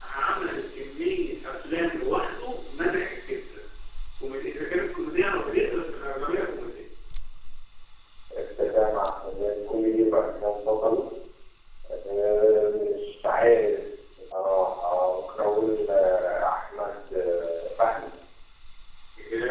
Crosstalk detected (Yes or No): No